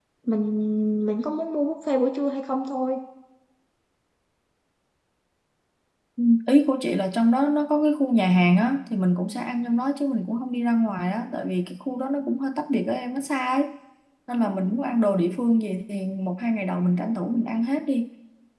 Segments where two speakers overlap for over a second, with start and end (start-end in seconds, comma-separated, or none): none